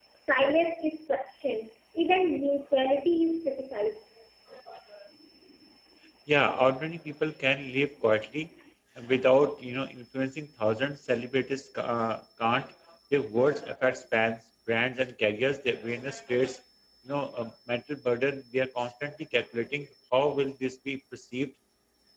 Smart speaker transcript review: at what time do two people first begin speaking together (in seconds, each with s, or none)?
none